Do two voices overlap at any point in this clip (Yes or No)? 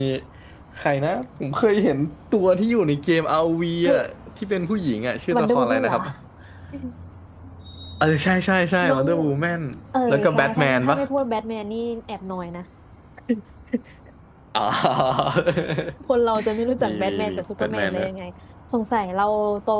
Yes